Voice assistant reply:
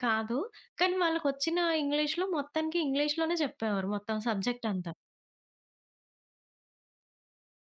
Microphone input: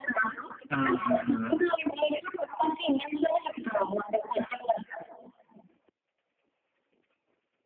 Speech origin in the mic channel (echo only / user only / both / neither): both